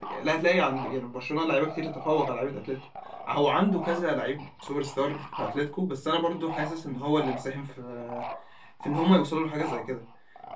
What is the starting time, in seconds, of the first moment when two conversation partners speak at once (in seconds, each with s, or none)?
none